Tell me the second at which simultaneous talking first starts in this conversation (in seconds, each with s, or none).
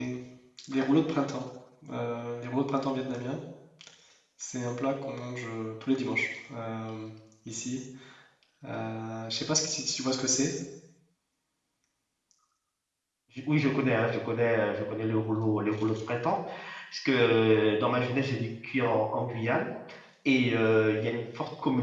none